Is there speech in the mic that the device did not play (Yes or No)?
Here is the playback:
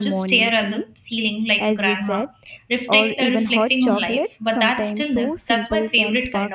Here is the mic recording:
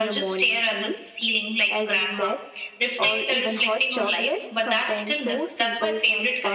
No